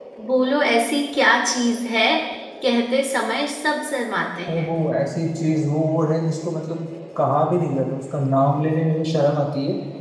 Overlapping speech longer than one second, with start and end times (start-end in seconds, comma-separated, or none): none